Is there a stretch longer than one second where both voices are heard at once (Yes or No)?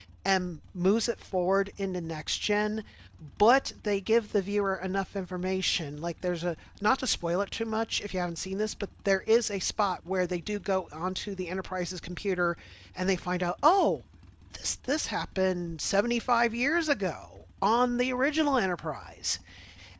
No